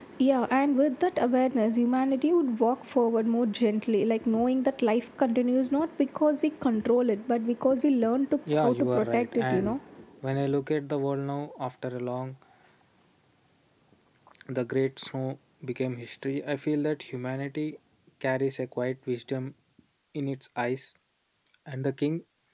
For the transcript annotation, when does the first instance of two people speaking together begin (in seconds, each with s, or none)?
8.5 s